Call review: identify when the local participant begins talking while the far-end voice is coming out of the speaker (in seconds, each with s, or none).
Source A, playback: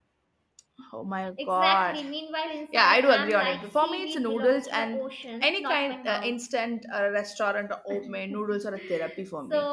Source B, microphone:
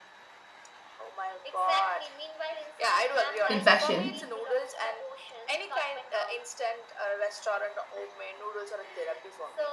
3.5 s